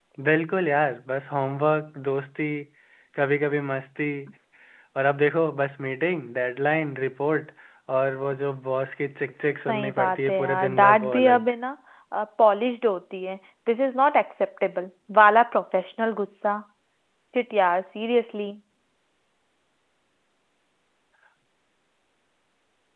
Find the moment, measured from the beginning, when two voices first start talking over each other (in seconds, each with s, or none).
9.7 s